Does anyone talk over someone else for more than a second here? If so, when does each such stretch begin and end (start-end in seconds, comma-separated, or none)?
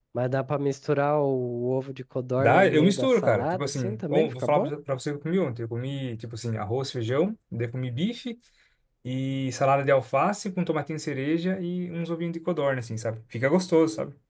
2.4-4.7